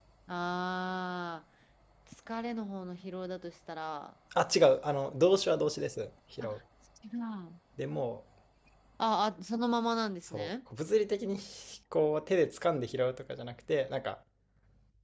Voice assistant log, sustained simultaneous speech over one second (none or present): none